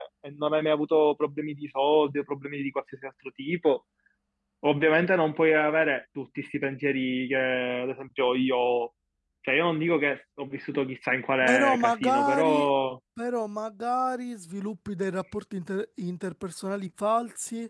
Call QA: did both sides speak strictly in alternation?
No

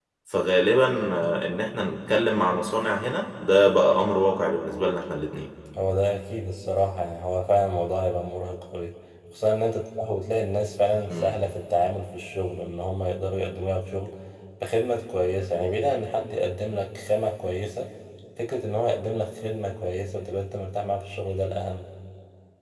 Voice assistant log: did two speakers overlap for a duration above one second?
No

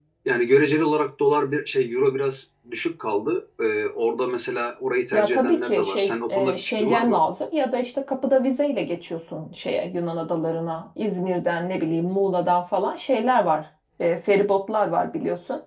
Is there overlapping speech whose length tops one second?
Yes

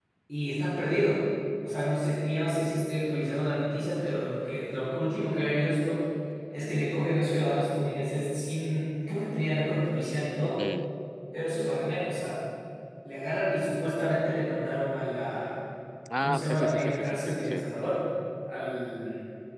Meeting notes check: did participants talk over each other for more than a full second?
Yes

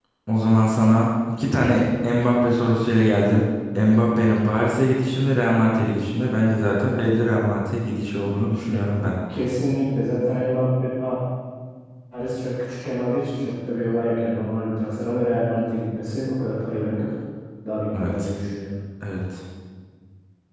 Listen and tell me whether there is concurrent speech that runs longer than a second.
No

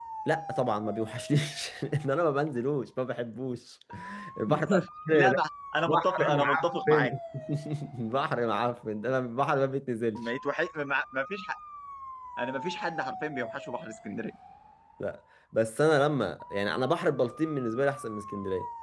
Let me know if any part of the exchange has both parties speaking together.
Yes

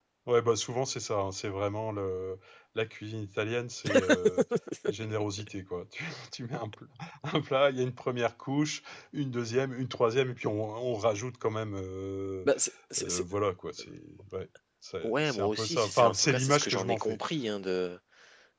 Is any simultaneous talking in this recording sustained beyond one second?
Yes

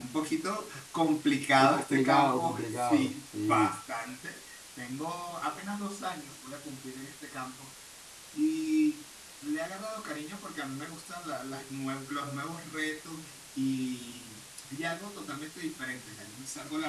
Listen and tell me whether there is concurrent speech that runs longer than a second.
Yes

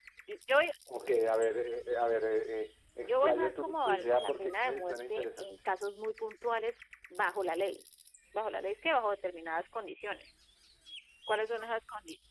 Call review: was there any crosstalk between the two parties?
Yes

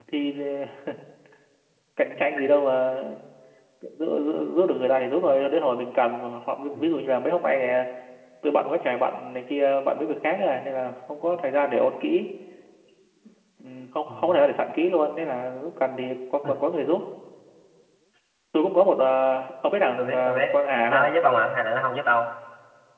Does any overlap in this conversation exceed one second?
No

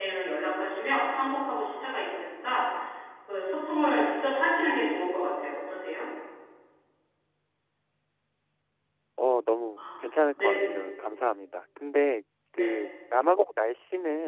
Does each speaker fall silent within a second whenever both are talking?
Yes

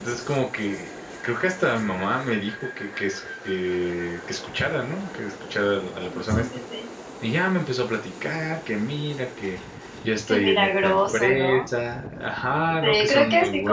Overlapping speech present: Yes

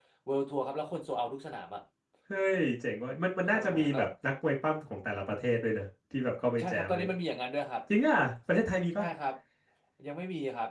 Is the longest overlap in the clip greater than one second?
No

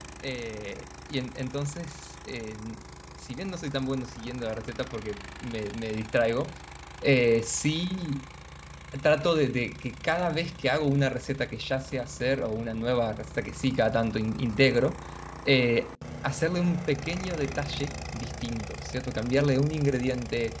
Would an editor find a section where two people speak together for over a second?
No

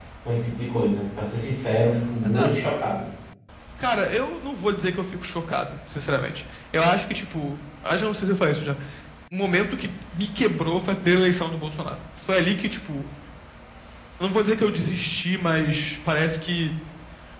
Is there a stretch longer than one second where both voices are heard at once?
No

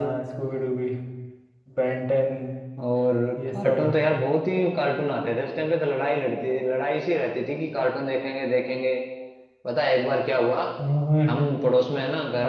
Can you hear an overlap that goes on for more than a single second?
No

